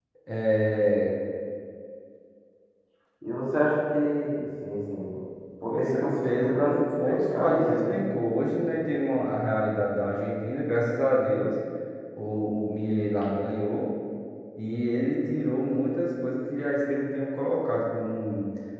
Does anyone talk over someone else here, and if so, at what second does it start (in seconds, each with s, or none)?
5.7 s